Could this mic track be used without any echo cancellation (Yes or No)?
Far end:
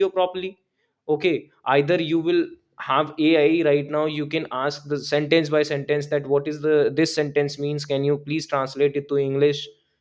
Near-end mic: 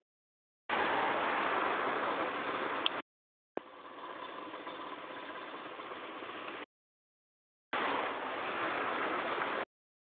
Yes